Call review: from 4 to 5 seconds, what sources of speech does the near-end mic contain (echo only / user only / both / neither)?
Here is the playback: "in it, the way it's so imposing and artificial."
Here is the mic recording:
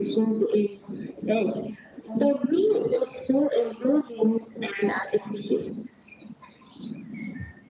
echo only